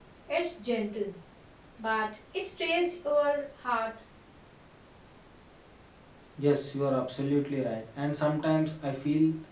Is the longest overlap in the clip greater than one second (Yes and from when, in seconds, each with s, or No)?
No